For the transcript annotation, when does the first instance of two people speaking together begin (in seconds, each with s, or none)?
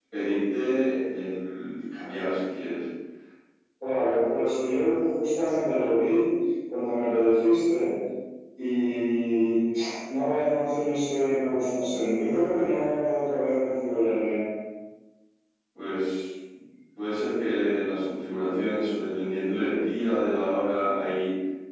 none